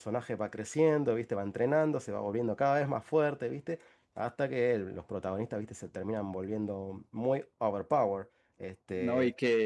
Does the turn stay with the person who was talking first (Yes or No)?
No